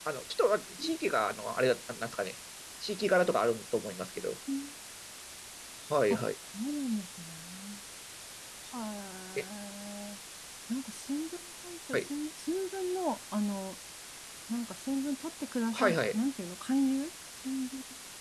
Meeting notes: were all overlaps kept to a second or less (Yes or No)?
Yes